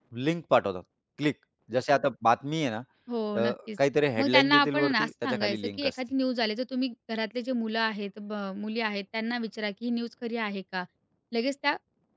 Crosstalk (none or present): present